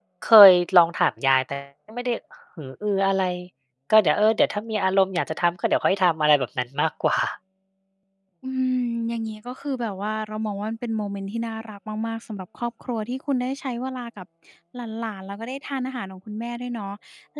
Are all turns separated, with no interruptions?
Yes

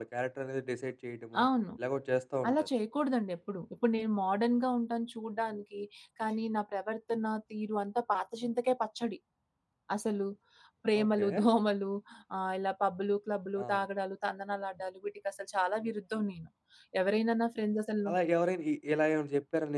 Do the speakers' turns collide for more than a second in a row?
No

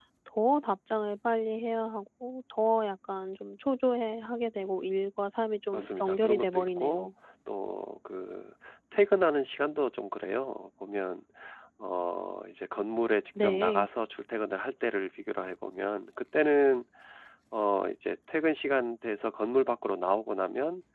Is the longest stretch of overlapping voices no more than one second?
No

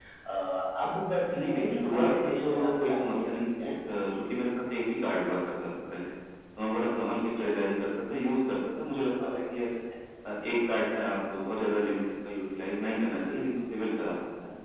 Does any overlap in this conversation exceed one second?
Yes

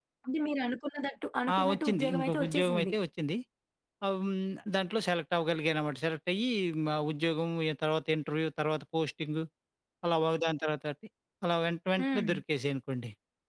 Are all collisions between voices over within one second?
No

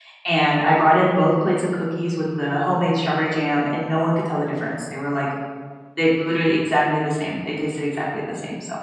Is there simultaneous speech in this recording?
No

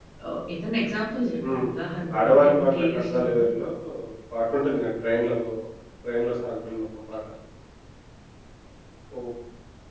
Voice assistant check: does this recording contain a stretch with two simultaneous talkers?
Yes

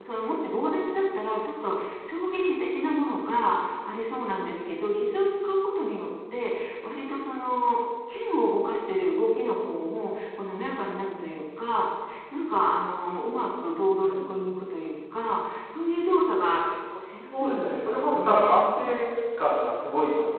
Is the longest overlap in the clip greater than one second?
Yes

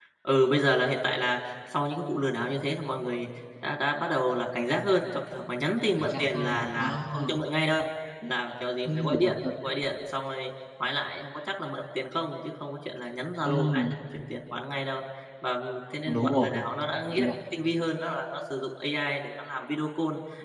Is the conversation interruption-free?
No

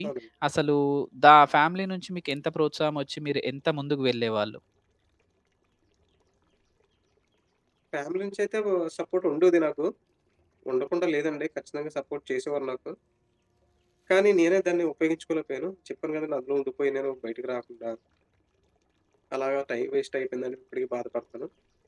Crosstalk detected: No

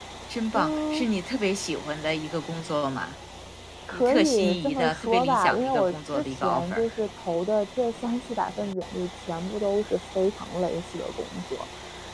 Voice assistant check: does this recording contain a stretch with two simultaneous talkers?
Yes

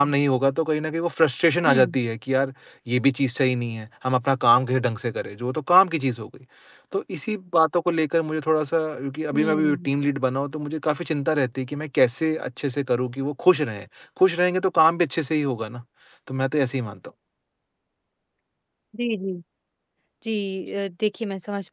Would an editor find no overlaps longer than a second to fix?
Yes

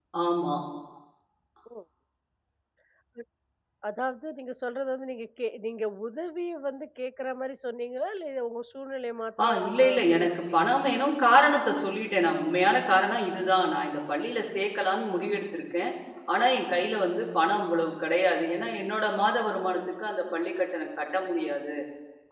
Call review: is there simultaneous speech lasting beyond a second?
Yes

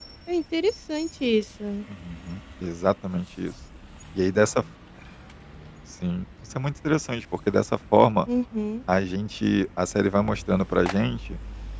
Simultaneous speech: No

